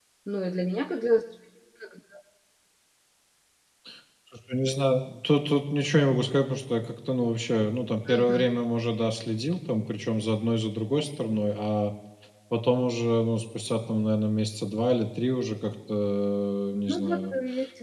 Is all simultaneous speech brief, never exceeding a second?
Yes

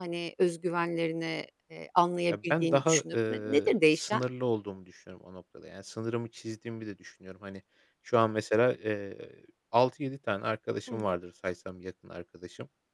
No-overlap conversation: No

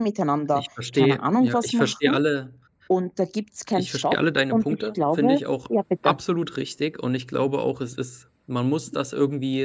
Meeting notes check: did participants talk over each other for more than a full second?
Yes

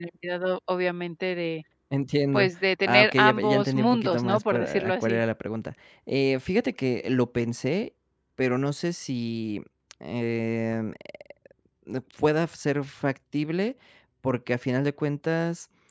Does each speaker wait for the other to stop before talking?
No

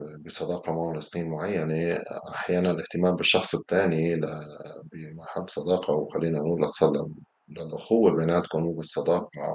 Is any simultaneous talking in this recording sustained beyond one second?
No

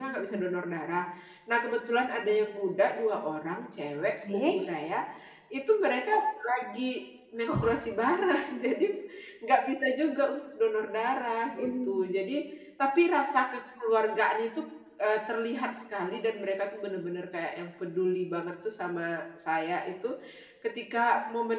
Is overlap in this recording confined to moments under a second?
Yes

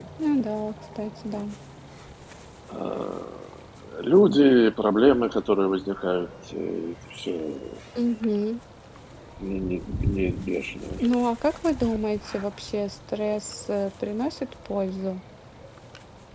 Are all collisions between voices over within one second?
Yes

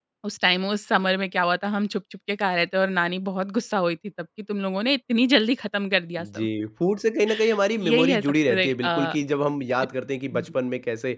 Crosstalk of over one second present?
Yes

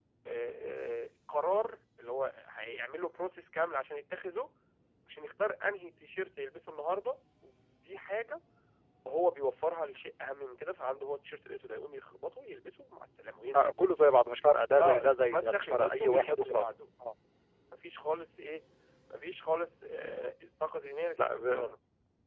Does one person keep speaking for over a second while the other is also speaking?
Yes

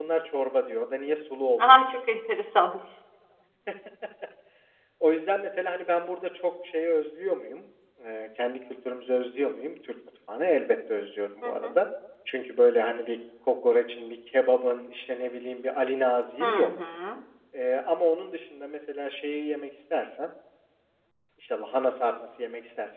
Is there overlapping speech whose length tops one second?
No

